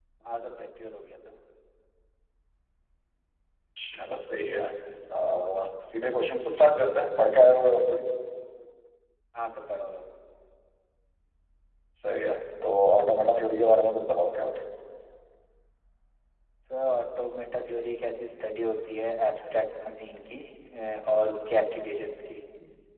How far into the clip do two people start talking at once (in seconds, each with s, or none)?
none